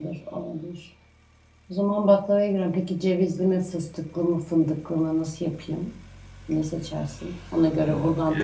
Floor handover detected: Yes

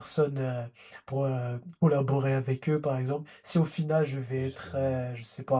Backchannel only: Yes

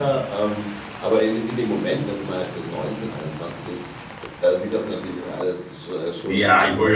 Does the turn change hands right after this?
Yes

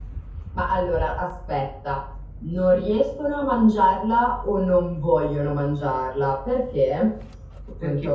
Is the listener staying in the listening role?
Yes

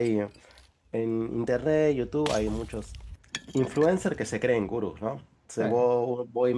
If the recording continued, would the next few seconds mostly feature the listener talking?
No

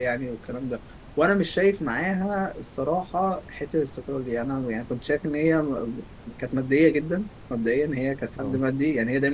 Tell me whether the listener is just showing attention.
Yes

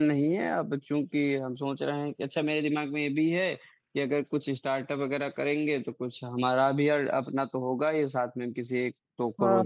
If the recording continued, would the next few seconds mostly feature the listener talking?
Yes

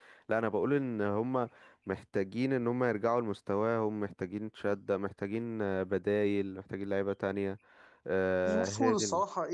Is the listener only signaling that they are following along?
No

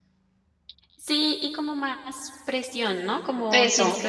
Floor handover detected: No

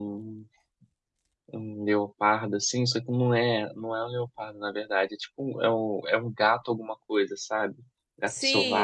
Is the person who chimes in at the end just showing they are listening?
No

